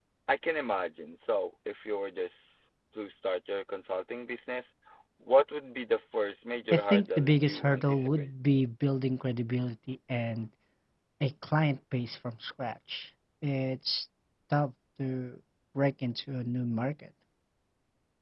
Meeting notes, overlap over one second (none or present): present